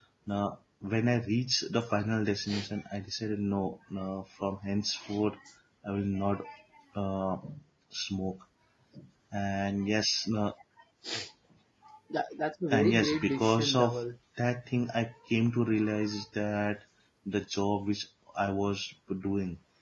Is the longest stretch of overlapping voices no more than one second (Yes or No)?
No